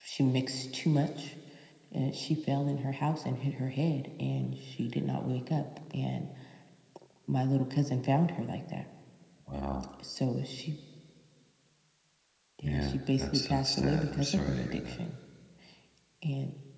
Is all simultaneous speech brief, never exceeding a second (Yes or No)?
No